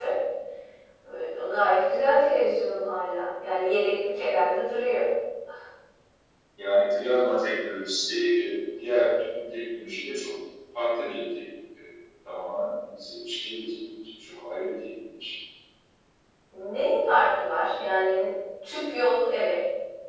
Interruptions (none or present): none